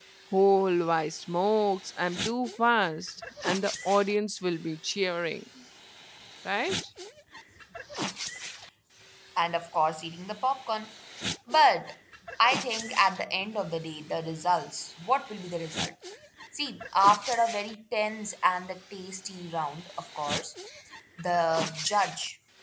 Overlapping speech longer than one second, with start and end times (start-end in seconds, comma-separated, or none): none